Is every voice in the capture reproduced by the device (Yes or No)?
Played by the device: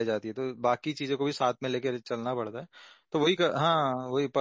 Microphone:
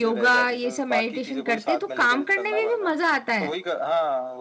No